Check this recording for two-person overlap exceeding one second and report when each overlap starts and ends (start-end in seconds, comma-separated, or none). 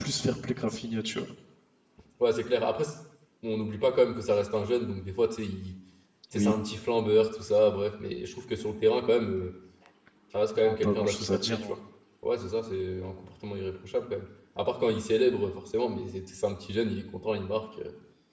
10.6-11.8